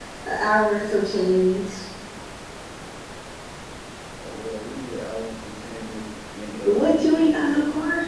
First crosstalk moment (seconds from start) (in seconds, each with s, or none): 6.6 s